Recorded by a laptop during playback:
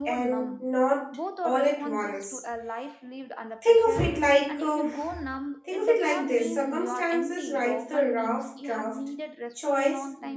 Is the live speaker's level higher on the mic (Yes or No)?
Yes